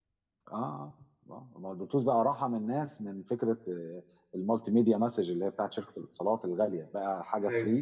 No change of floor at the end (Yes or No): Yes